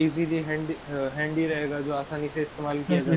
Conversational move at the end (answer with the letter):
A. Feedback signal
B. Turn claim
B